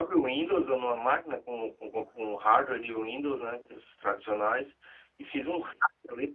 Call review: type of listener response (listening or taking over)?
listening